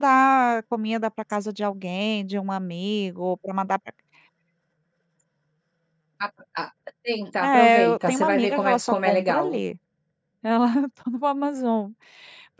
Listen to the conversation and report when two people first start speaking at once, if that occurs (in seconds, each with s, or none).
7.4 s